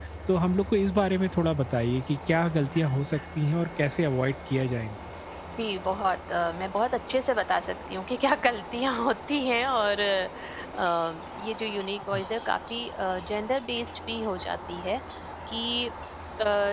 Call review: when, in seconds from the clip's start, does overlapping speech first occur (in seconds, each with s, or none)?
none